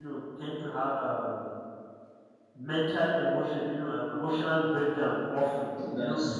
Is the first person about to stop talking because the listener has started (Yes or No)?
No